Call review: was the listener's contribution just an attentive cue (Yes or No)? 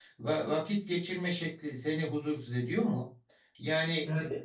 Yes